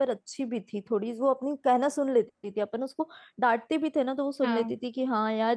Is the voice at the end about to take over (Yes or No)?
No